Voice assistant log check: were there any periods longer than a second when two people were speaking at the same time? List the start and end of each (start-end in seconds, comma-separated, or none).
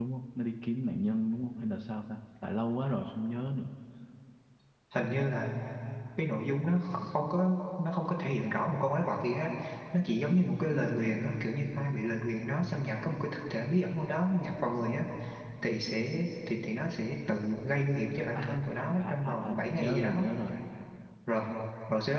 19.0-20.3